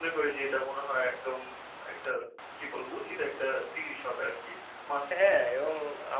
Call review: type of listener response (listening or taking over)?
taking over